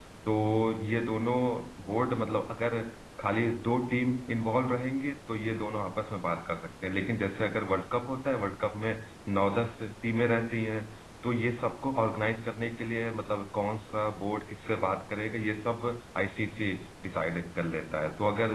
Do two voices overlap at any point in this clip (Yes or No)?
No